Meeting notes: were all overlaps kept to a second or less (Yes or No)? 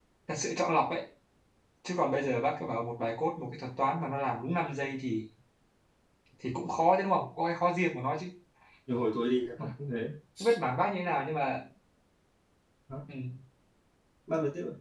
Yes